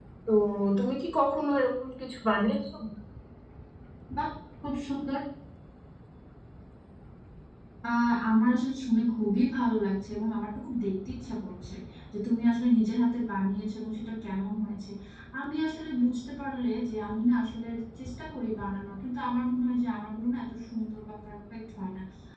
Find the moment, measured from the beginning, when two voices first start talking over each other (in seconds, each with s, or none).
none